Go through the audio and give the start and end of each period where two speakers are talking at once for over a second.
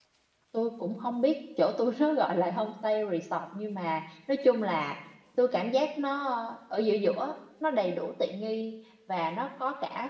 none

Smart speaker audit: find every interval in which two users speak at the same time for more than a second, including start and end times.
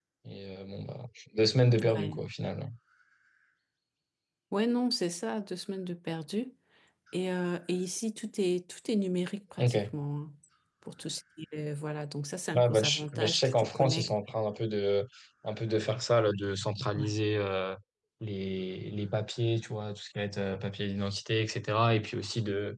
12.5-14.1

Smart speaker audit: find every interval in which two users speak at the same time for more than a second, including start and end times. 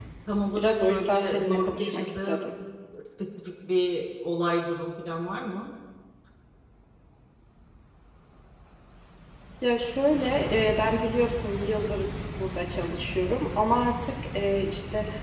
0.6-2.5

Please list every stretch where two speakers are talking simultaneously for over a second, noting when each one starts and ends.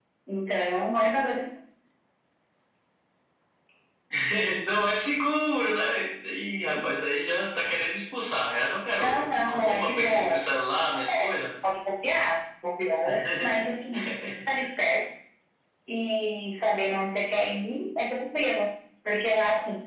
9.0-10.4

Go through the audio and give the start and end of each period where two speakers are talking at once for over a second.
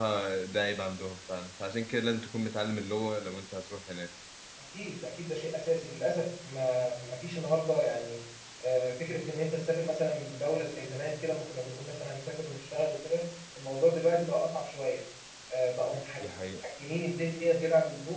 none

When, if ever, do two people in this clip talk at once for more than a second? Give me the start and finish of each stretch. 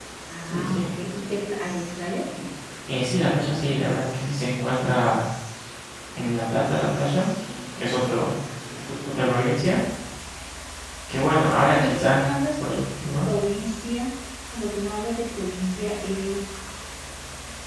none

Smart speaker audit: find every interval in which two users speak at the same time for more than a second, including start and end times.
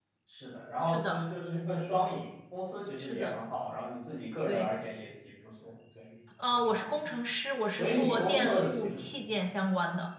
7.7-9.1

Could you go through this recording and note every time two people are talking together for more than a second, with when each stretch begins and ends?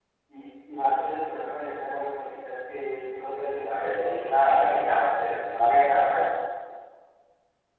3.6-5.3

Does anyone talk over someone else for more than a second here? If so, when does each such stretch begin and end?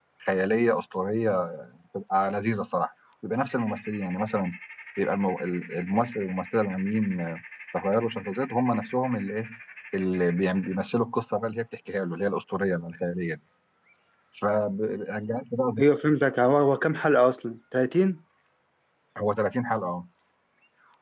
none

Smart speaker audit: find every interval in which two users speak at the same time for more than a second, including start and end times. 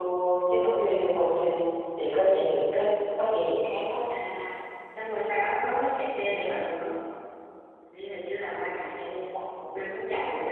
none

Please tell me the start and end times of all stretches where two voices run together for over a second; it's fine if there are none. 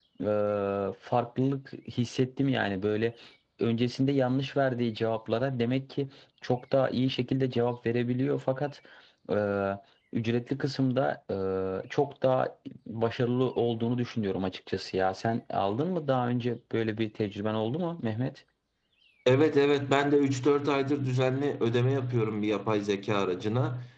none

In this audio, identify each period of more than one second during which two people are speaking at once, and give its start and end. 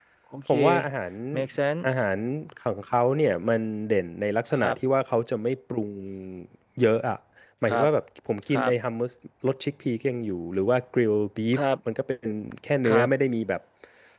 none

